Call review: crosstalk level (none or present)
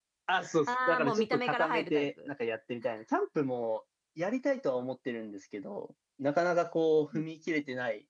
present